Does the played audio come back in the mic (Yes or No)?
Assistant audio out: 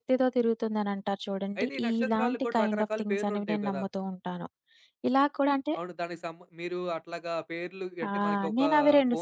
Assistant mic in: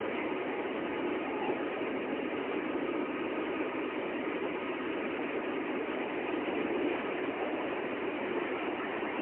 No